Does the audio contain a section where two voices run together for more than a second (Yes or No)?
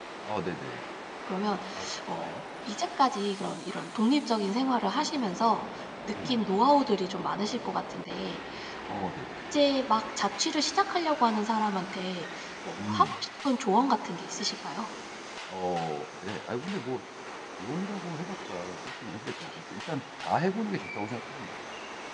No